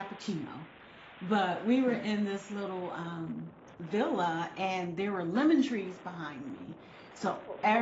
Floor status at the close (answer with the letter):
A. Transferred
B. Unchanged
B